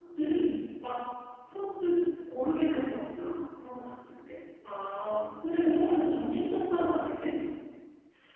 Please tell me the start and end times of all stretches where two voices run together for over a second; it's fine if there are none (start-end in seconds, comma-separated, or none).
none